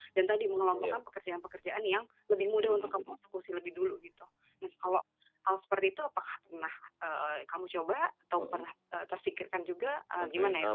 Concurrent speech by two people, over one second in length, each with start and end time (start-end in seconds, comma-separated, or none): none